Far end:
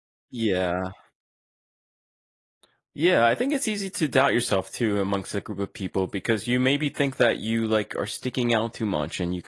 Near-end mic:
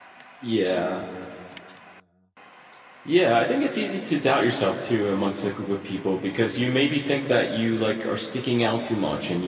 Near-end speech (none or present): none